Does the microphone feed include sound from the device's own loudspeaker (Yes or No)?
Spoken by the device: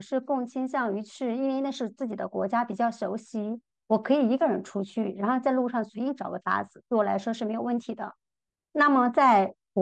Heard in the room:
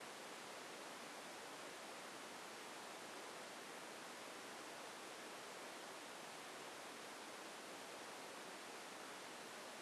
No